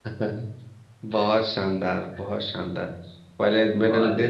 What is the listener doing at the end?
listening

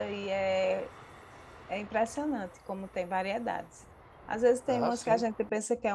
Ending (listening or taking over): listening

